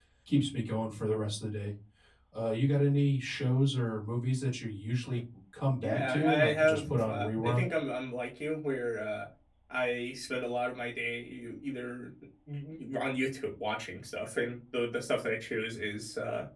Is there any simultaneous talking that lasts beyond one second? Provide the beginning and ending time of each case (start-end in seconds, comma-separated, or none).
5.8-7.7